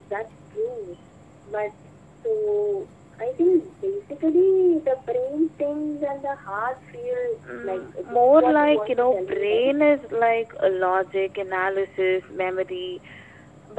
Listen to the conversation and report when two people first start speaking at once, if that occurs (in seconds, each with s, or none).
7.5 s